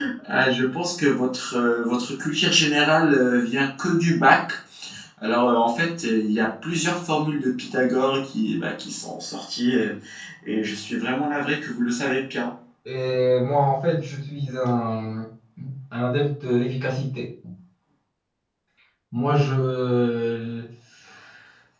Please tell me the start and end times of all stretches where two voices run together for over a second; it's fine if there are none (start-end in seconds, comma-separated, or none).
none